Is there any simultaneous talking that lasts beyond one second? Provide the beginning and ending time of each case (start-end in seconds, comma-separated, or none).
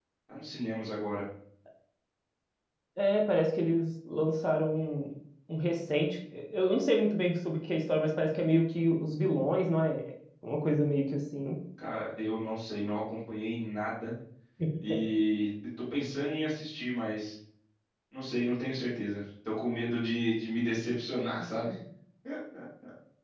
none